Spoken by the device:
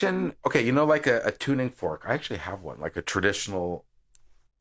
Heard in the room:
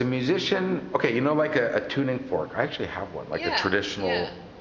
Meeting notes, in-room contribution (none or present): present